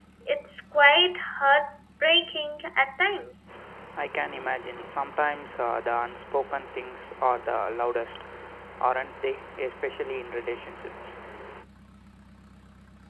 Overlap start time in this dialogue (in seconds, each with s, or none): none